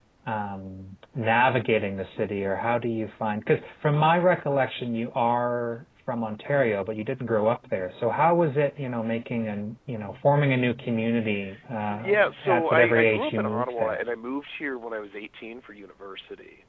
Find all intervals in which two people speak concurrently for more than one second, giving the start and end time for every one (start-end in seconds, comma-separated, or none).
11.9-14.0